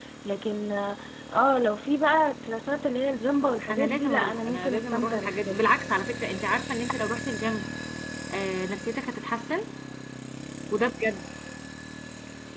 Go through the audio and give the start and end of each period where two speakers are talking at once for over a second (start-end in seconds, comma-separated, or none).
3.7-5.7